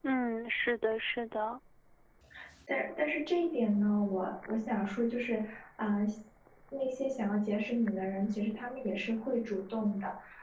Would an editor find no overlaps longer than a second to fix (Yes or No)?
Yes